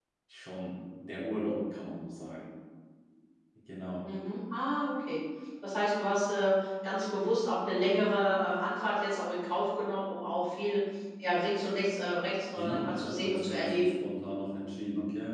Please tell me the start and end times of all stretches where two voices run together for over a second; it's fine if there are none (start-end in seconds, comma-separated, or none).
12.6-13.9